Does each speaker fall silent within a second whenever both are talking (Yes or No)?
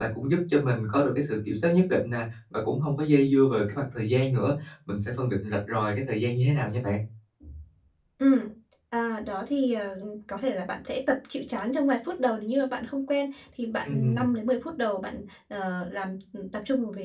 Yes